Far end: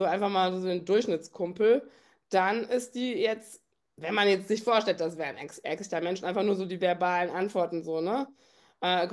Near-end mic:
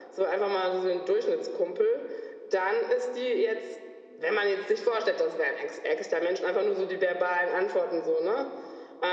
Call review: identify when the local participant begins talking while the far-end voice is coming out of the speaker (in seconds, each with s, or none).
none